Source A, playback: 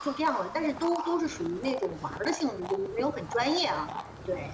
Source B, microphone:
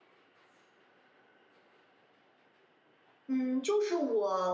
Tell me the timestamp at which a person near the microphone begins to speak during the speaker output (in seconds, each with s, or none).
3.3 s